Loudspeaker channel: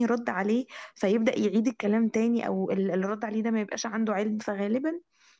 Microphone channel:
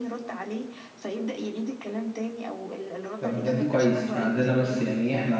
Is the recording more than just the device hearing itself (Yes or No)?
Yes